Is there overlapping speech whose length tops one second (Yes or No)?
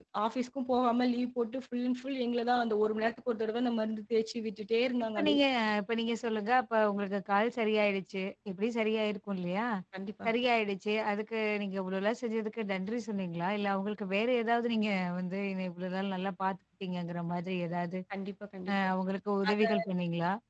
No